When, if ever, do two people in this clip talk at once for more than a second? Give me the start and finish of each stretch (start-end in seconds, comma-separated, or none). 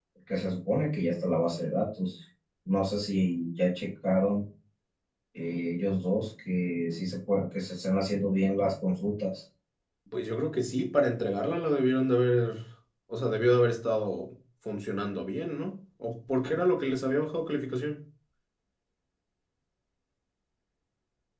none